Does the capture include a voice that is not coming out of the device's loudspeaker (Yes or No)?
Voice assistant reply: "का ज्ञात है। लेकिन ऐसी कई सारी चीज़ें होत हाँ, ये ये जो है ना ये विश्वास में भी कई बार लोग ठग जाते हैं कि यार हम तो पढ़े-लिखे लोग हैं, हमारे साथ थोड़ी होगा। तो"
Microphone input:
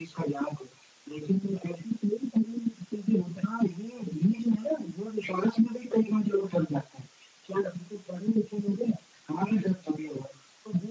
No